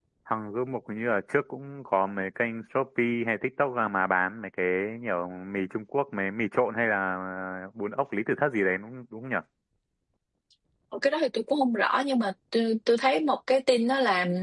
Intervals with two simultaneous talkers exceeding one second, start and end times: none

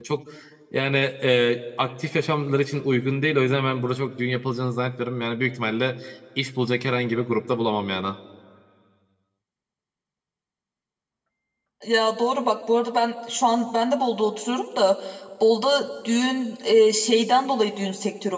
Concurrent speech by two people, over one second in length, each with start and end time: none

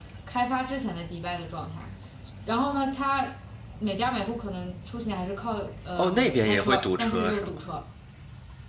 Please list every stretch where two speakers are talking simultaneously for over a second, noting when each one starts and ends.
6.0-7.6

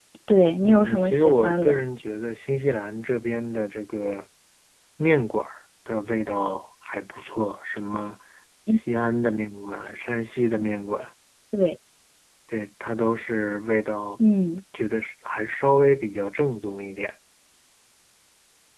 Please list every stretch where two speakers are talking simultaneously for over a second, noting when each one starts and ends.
0.6-1.8

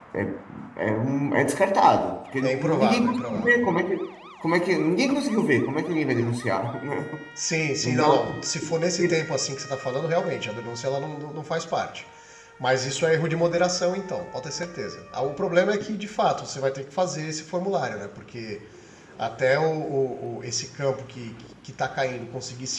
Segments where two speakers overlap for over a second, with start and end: 2.4-3.6

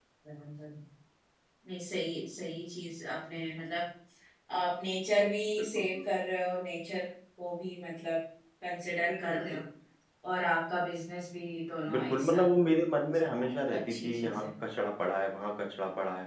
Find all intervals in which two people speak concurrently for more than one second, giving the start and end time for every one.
13.1-14.4

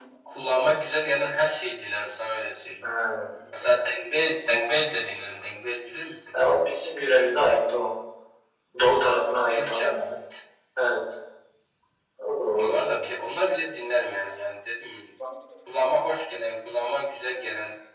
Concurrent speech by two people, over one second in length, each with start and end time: none

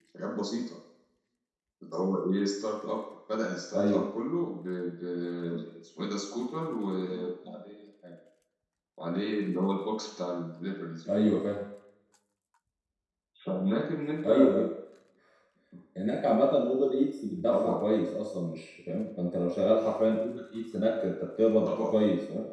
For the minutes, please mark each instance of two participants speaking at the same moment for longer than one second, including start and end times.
none

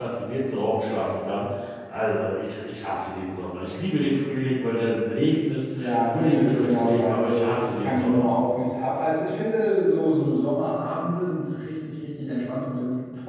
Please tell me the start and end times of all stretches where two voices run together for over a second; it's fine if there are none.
5.8-8.2

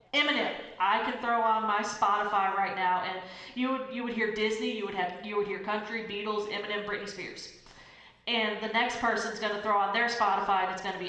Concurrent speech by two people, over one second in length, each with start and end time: none

